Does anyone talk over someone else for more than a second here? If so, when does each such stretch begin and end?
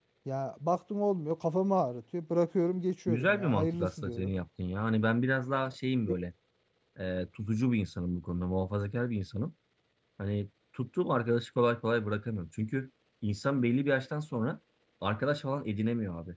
3.1-4.3

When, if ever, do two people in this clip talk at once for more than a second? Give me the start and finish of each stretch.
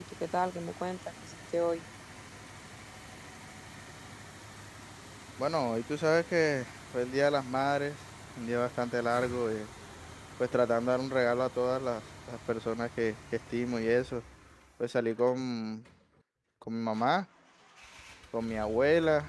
none

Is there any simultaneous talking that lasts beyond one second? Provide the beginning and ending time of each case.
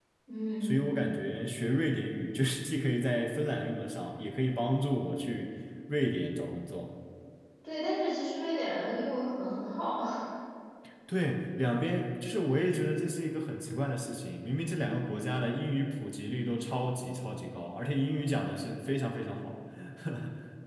none

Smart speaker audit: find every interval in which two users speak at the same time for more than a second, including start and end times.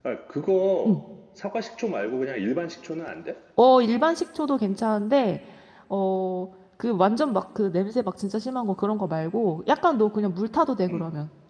none

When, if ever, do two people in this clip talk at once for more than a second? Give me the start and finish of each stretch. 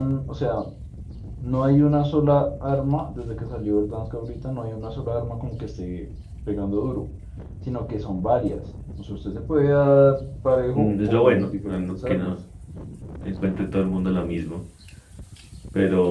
10.8-12.3

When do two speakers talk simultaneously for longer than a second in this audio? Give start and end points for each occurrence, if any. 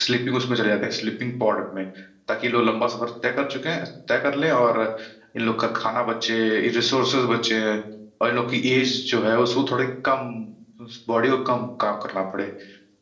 none

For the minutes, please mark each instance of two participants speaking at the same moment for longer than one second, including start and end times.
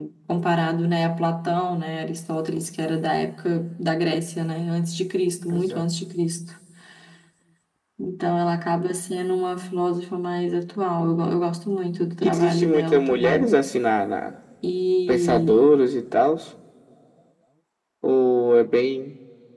12.2-13.5

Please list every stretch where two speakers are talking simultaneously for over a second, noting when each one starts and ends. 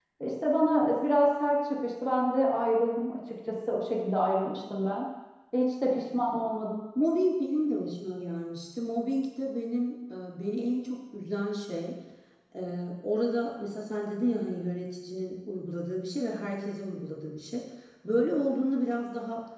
none

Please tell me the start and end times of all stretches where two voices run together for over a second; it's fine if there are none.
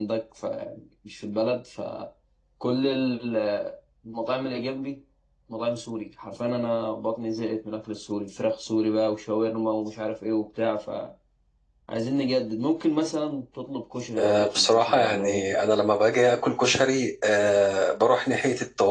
14.2-15.5

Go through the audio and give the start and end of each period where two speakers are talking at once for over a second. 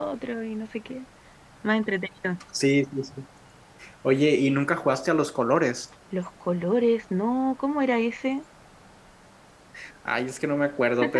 none

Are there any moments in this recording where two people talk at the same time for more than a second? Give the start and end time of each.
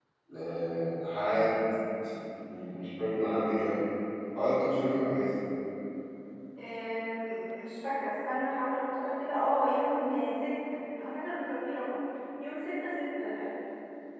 none

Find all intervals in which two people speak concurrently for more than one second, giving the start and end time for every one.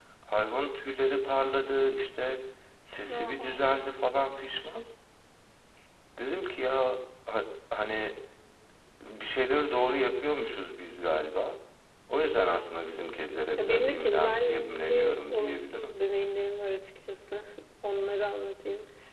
13.6-16.0

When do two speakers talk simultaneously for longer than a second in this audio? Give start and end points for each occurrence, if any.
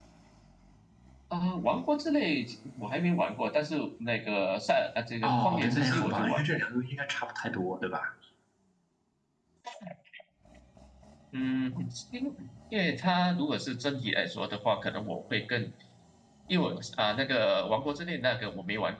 5.2-6.6

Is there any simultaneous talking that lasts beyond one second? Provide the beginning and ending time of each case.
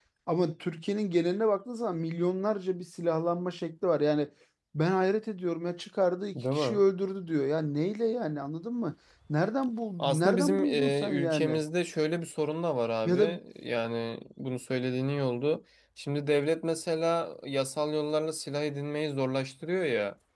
10.0-11.6

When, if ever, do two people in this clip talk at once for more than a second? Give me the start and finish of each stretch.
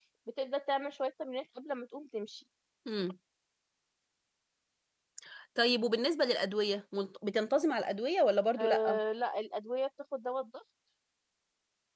none

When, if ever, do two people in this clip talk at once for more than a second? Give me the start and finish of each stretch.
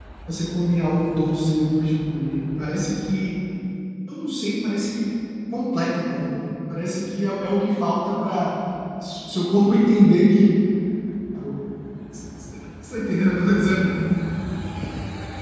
none

